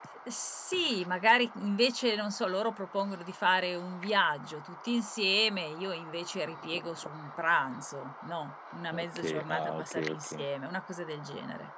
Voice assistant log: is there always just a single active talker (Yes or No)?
No